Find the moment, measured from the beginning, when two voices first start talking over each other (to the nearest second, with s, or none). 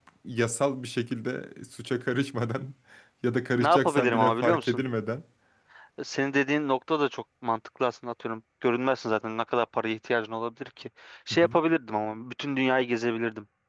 4 s